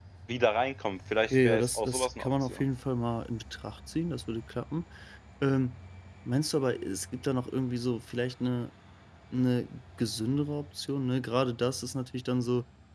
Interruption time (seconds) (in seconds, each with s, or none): 1.3 s